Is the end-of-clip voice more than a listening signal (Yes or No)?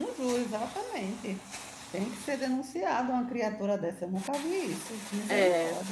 Yes